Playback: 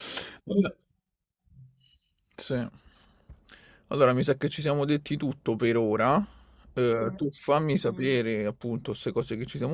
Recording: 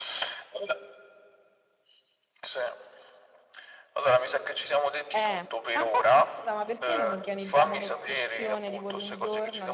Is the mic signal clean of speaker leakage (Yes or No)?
No